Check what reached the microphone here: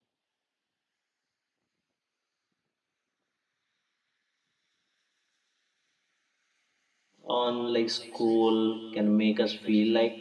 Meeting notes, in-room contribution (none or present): present